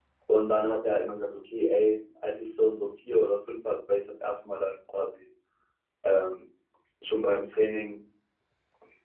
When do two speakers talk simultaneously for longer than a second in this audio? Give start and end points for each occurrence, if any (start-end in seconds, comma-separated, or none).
none